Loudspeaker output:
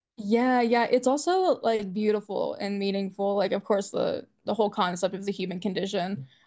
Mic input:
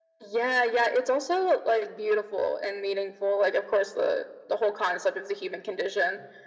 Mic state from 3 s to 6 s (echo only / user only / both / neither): echo only